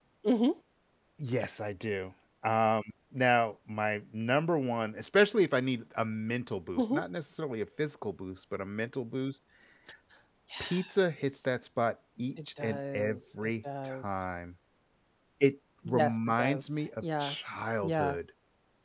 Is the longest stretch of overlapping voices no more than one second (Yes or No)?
No